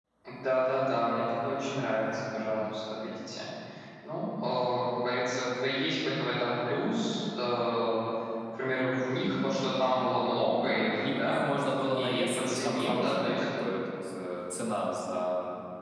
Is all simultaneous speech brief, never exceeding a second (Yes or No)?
No